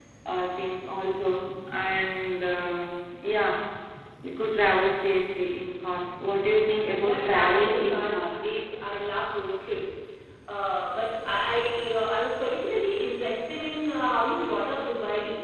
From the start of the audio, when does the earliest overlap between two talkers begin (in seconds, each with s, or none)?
7.0 s